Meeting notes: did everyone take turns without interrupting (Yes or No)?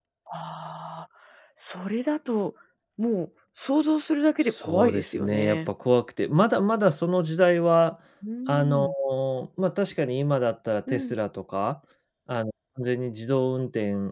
No